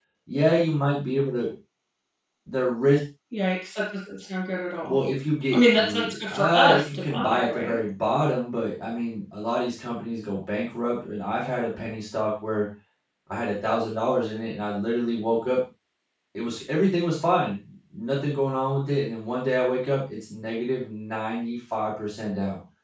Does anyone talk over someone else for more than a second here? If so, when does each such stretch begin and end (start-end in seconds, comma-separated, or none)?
5.5-7.8